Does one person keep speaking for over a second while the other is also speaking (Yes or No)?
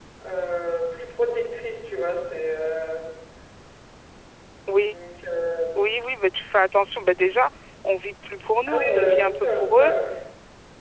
Yes